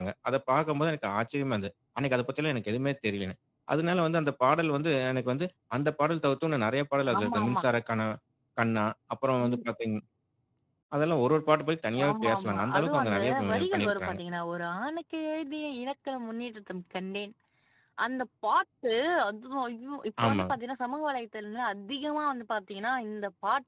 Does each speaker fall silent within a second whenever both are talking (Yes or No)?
No